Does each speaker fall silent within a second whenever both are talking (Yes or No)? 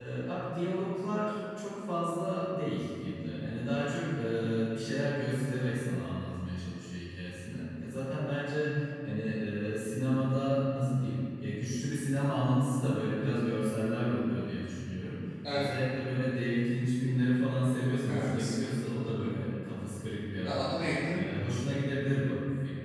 Yes